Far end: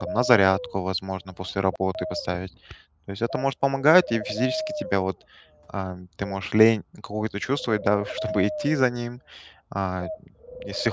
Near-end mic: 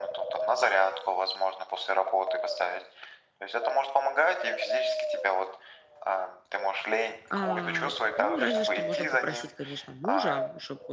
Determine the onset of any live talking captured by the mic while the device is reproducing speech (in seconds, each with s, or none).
7.3 s